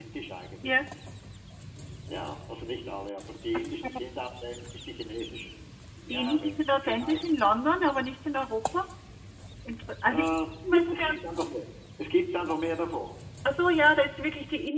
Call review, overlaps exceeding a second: none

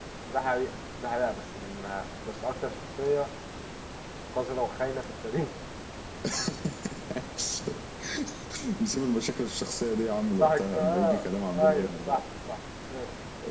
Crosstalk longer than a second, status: present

